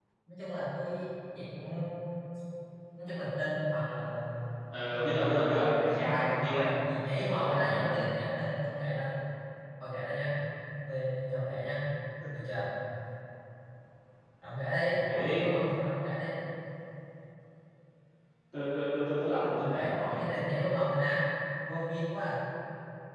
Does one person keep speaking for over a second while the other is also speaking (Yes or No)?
Yes